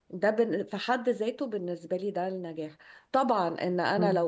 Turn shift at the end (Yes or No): No